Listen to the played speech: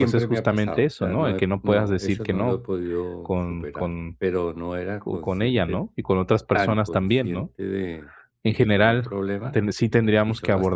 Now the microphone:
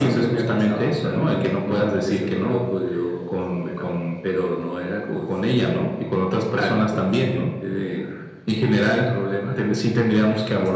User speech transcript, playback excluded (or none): none